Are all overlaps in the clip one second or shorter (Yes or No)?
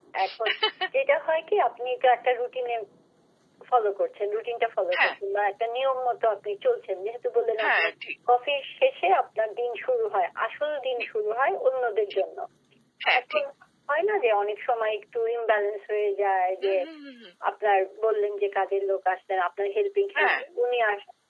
Yes